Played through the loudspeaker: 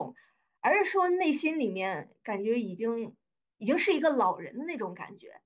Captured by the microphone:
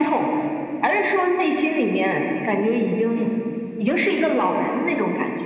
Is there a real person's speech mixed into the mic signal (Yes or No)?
No